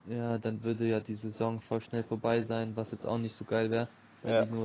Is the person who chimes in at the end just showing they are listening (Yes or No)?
Yes